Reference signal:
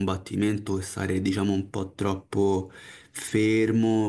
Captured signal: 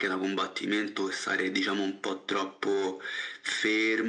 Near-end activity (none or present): none